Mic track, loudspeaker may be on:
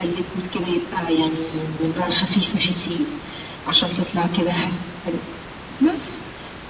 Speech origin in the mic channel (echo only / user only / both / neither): echo only